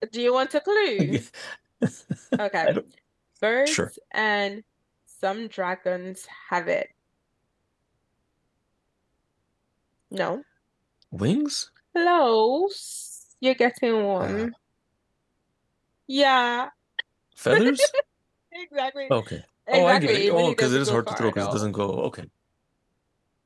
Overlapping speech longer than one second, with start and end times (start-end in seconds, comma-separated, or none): 19.7-21.6